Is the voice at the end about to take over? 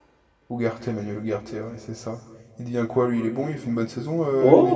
Yes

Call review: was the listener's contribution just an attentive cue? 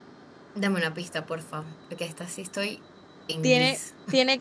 No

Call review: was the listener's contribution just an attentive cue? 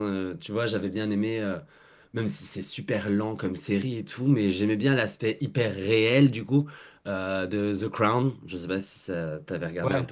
No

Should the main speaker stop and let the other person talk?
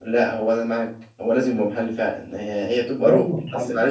No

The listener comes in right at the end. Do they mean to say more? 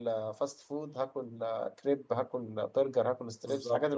Yes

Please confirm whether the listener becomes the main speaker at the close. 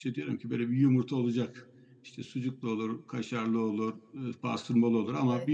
No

